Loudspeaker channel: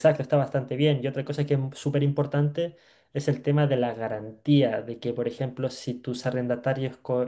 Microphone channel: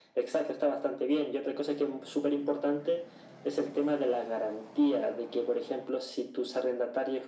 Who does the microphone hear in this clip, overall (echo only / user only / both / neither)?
echo only